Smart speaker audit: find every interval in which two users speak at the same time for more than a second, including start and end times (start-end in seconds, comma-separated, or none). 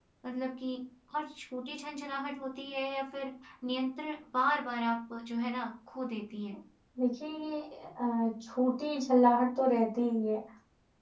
none